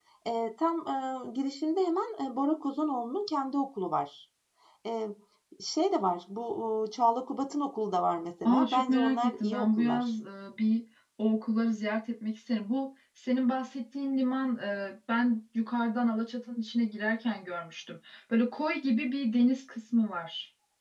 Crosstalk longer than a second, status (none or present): present